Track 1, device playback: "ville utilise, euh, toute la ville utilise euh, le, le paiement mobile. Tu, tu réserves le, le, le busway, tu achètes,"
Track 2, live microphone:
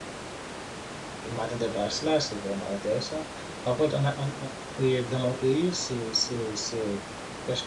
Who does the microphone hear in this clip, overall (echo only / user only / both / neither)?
user only